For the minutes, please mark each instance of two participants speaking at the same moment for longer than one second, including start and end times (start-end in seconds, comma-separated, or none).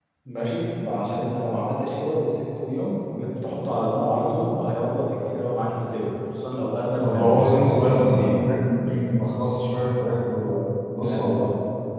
7.0-8.4